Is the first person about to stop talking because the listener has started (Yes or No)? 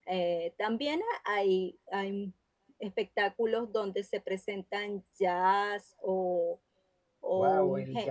Yes